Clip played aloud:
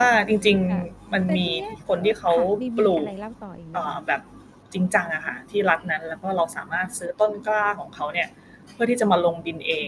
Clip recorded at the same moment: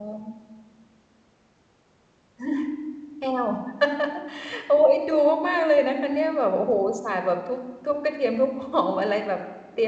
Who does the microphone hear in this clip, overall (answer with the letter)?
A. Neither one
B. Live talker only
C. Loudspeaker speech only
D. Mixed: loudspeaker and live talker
B